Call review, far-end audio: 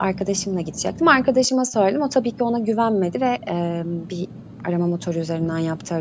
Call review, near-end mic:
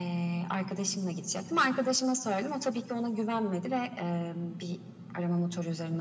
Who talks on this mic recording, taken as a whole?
echo only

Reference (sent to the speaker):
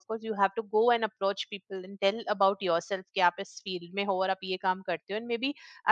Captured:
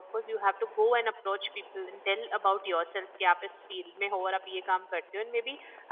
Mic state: echo only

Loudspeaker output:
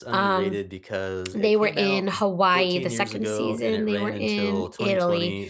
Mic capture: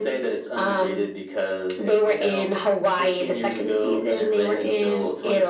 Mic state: echo only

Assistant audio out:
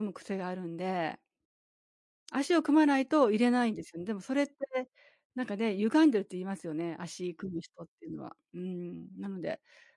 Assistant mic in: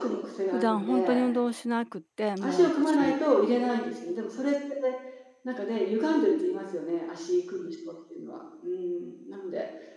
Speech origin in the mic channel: both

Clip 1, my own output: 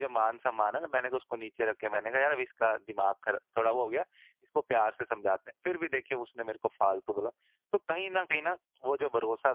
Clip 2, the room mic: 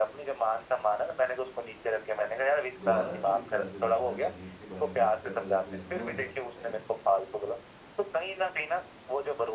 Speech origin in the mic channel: both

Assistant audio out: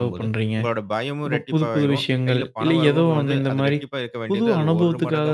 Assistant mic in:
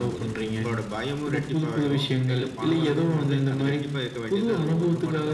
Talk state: echo only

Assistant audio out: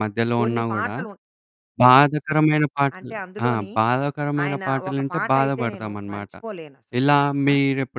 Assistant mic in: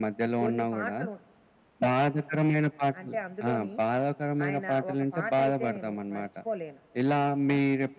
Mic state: echo only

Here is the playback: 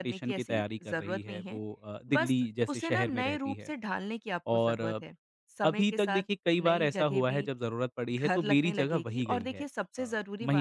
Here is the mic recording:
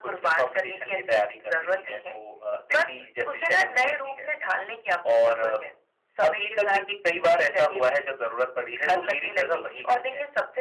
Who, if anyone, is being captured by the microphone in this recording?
echo only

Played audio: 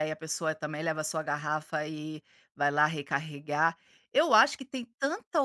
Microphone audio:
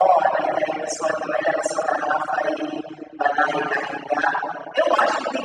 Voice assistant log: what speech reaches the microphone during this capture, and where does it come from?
echo only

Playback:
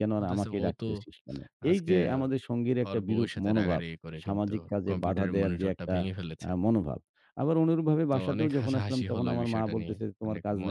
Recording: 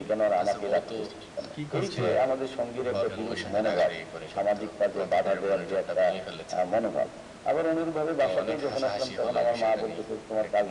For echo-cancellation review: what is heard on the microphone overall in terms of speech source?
both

